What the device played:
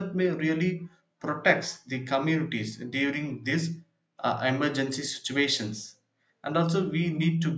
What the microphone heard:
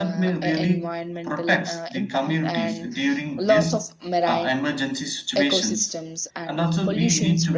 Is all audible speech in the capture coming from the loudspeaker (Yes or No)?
No